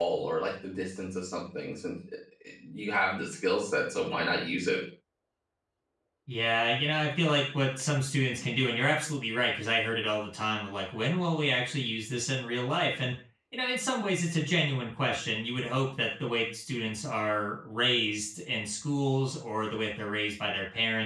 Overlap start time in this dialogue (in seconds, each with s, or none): none